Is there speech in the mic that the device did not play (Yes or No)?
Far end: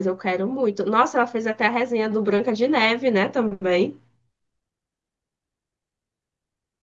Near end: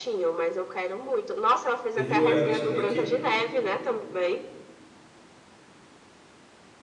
Yes